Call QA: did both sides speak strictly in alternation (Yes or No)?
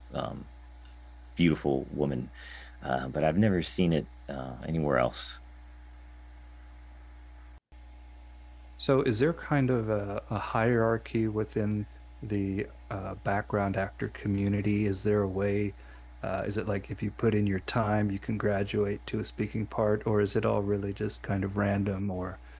Yes